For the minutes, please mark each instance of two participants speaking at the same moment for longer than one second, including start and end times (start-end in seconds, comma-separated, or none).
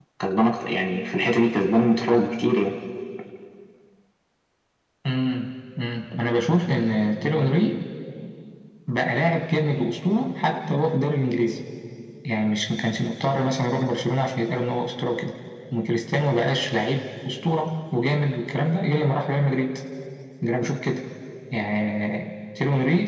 none